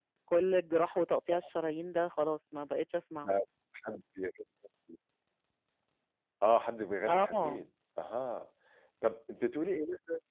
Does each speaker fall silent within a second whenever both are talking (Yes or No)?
Yes